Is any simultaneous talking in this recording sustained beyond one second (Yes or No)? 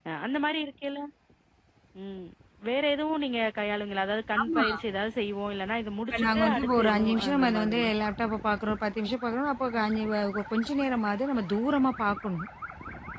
Yes